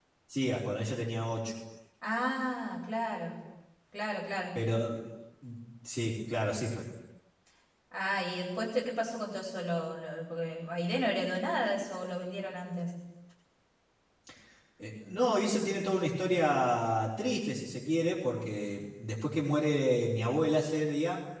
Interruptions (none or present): none